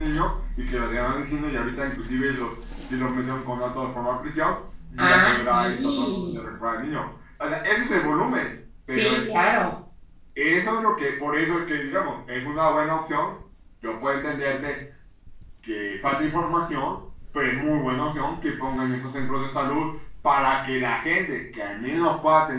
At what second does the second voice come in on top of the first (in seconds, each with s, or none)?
5.0 s